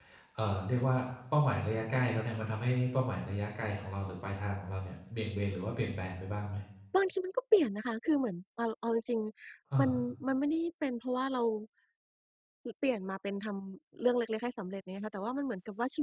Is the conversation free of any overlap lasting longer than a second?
Yes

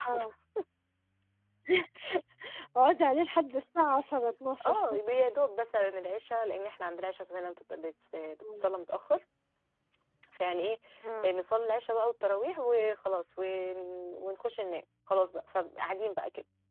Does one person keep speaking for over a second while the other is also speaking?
No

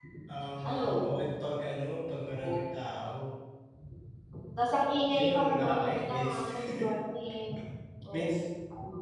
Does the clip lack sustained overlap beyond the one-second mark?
No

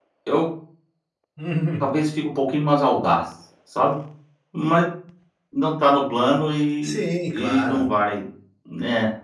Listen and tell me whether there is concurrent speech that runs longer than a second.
No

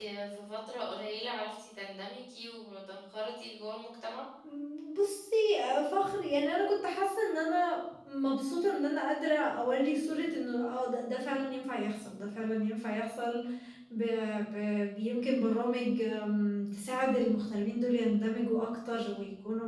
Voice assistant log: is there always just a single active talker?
Yes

